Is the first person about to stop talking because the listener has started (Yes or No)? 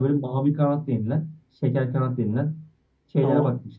No